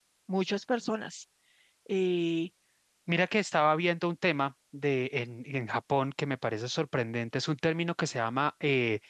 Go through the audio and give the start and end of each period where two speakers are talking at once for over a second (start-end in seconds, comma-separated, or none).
none